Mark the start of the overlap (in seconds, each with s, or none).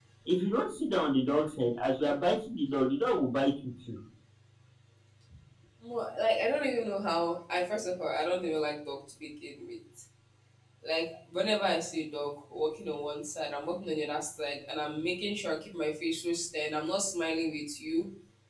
none